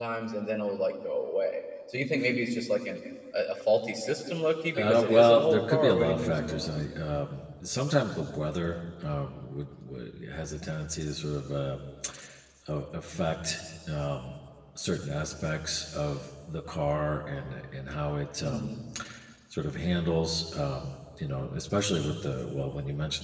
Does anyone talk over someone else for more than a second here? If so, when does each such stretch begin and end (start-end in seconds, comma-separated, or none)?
4.8-6.8